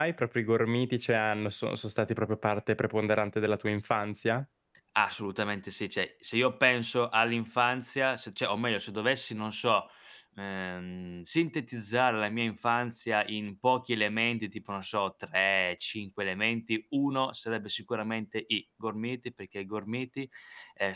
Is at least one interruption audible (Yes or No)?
No